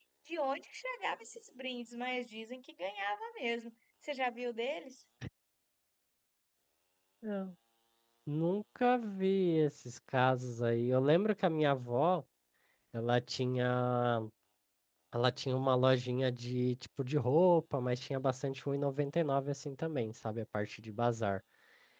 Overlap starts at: none

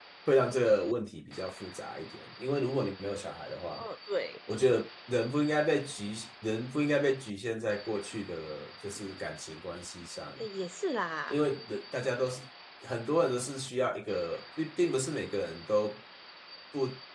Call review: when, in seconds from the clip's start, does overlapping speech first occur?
none

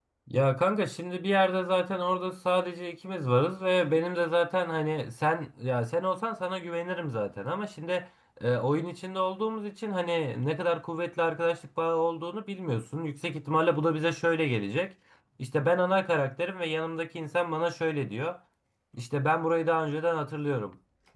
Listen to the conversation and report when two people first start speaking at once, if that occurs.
none

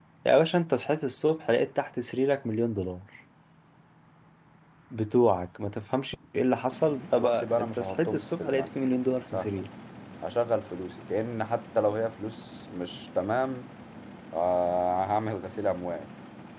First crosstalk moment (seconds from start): 7 s

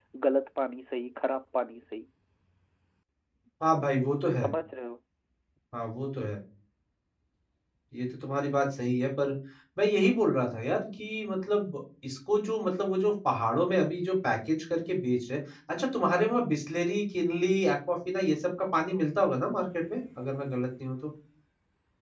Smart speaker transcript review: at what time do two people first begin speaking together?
none

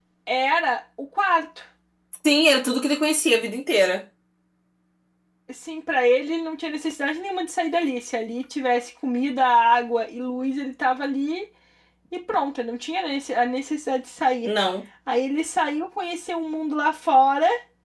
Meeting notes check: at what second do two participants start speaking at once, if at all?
none

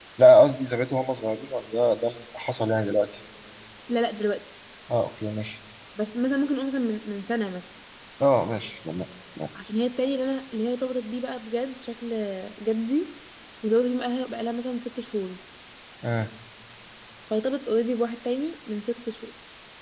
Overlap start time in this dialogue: none

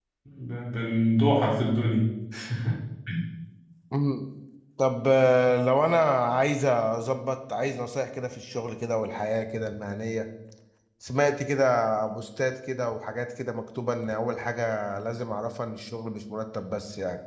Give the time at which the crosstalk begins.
none

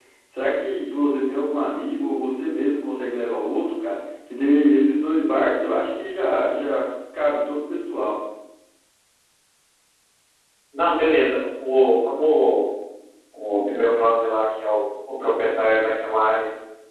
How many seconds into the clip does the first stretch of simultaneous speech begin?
none

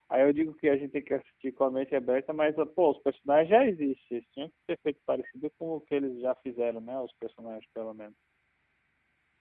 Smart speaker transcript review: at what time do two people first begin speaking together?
none

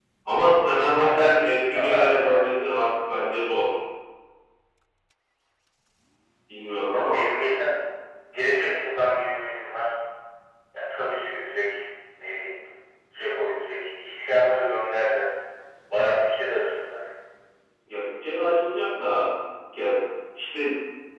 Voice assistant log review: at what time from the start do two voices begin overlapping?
1 s

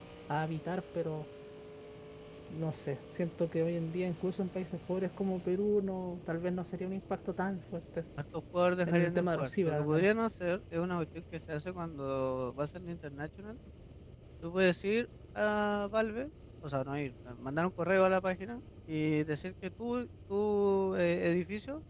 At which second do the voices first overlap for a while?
9 s

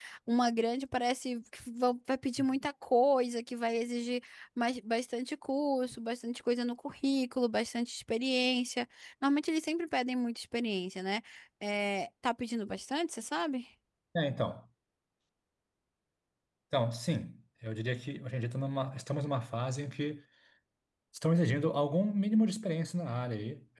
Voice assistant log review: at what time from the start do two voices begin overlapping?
none

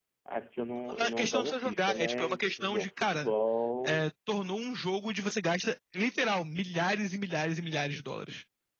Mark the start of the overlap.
1 s

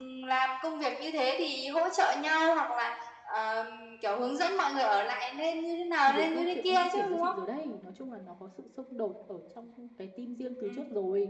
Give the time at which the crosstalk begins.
6 s

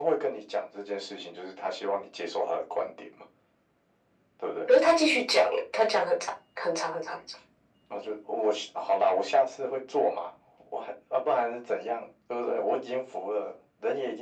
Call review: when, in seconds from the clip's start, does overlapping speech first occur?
none

